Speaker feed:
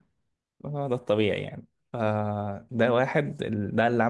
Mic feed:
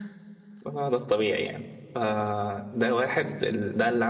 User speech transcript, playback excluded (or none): none